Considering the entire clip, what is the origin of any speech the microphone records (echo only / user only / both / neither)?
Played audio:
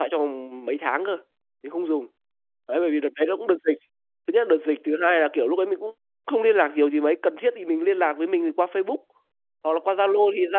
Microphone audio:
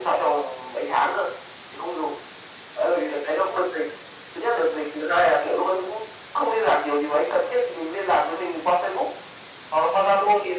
echo only